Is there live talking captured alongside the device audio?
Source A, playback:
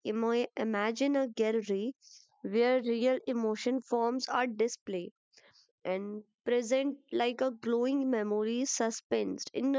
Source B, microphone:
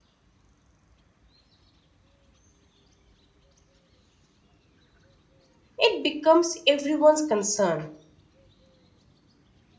Yes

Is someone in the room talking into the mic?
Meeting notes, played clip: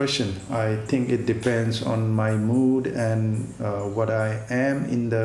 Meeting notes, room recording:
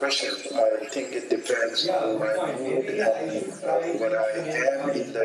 Yes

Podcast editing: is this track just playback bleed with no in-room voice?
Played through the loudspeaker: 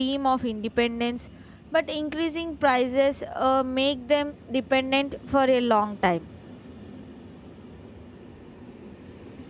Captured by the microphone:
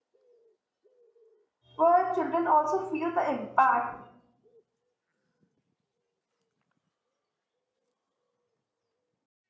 No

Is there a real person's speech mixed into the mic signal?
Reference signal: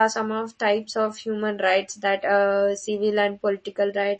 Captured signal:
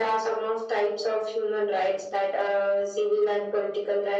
No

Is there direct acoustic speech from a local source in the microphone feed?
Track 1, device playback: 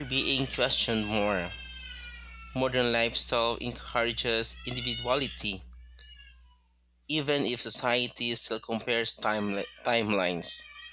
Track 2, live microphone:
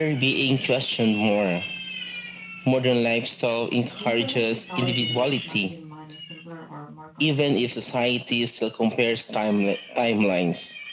Yes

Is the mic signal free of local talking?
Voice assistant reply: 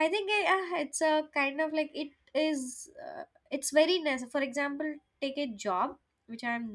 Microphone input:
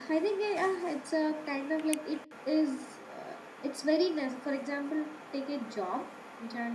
Yes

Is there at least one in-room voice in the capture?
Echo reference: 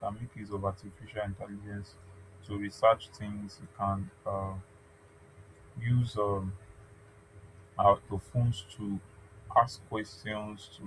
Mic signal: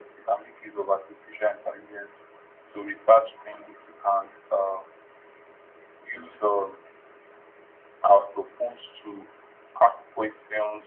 No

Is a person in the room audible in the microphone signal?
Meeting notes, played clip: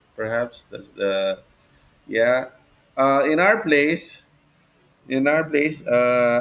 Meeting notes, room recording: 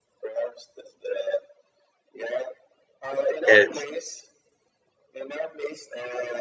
Yes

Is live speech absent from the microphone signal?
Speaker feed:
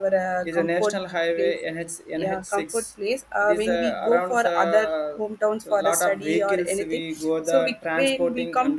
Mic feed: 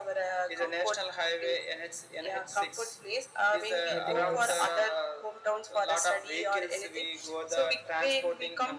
No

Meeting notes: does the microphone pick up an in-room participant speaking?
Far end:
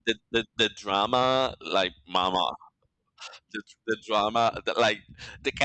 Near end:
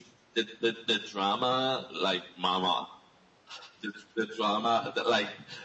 No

